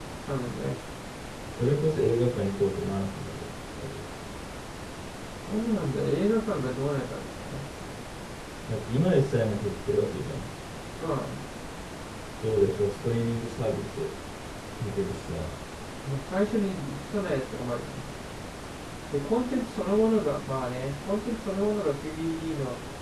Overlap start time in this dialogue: none

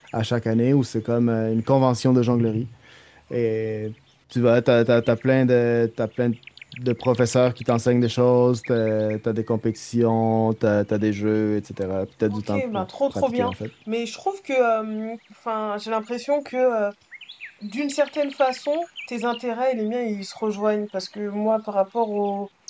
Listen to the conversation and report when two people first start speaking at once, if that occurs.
12.3 s

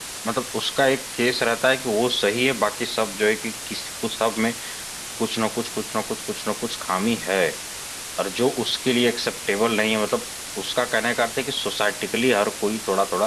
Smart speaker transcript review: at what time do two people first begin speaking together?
none

